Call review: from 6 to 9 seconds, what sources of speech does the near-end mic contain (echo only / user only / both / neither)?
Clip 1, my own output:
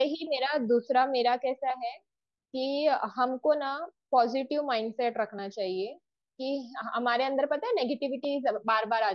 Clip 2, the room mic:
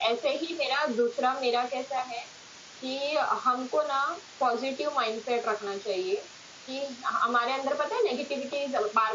echo only